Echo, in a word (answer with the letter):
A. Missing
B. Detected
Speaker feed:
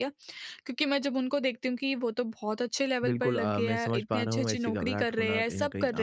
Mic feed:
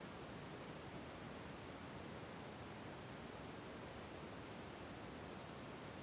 A